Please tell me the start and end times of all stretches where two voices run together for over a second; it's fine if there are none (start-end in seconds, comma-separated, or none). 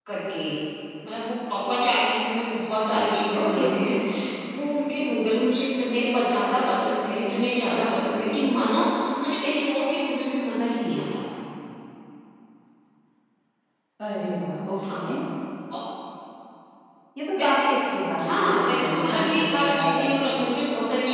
18.2-20.0